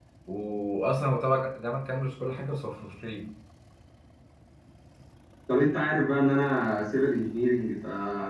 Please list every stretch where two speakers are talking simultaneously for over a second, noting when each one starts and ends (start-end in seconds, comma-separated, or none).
none